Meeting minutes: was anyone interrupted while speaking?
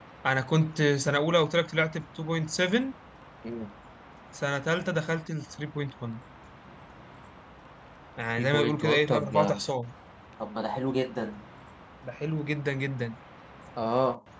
Yes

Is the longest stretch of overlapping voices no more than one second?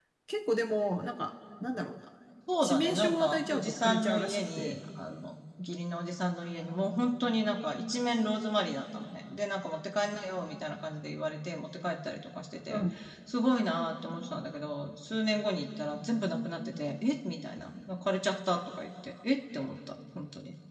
No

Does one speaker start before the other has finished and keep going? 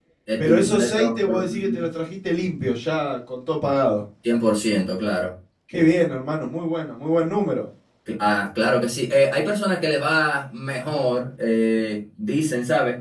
Yes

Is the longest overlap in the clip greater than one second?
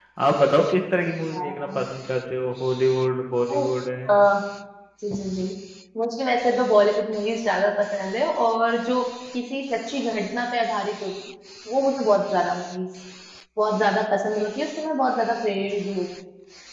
No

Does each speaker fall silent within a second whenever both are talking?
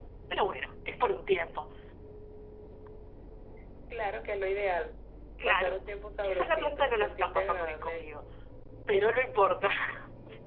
No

